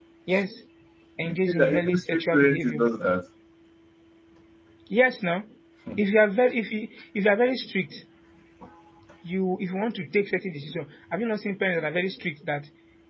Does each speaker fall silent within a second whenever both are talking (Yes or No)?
No